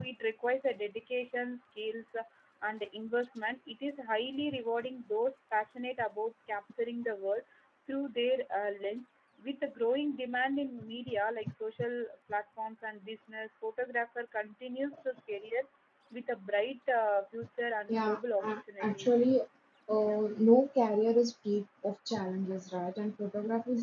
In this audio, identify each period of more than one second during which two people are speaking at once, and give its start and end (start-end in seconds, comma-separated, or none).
17.9-19.2